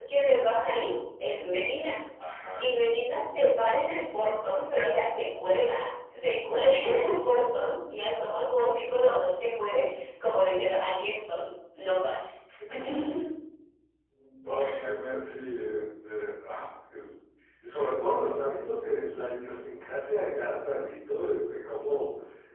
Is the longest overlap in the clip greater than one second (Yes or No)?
No